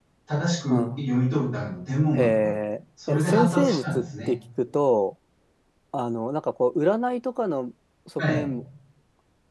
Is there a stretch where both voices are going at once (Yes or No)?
Yes